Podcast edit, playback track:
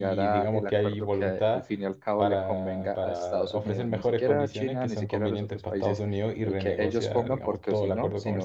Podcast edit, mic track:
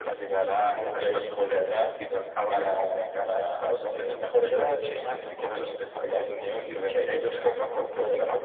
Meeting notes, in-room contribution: none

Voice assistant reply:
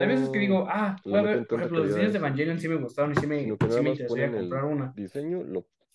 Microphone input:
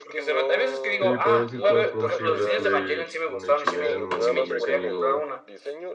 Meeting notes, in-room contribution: present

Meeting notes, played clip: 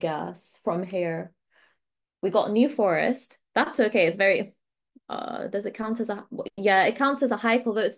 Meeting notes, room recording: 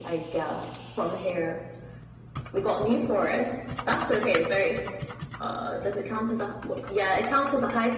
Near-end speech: none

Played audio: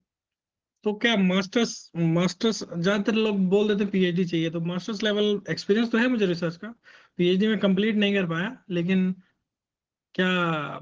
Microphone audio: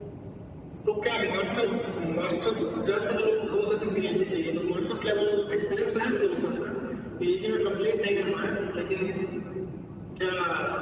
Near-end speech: none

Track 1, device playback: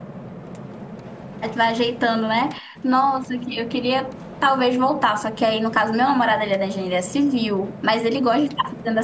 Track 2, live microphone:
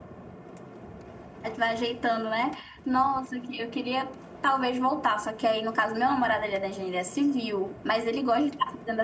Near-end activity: none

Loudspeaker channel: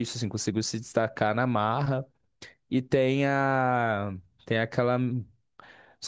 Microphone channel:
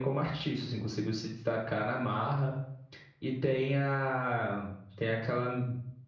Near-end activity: none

